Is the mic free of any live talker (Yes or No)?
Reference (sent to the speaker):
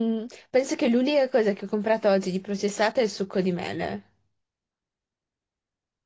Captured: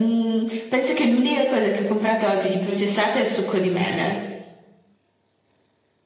Yes